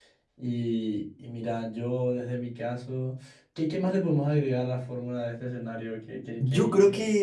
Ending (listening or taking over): taking over